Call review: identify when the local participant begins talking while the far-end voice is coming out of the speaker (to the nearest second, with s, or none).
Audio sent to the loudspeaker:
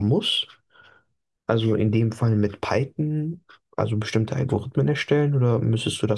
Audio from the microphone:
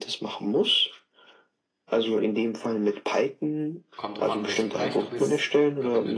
4 s